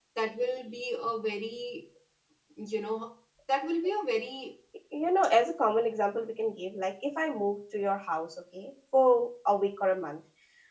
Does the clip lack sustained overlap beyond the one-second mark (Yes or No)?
Yes